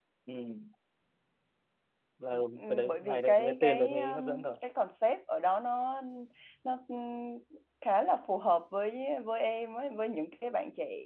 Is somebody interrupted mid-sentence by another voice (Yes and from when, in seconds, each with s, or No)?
Yes, from 2.3 s